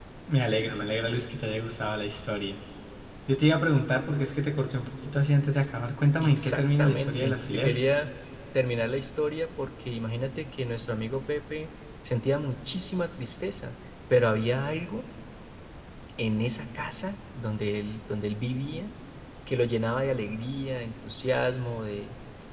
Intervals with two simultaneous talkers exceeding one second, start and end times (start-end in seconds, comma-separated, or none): 6.2-7.8